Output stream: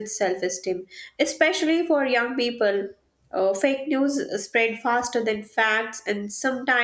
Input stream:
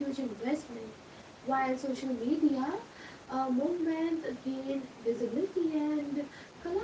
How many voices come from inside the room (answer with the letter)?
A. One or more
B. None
A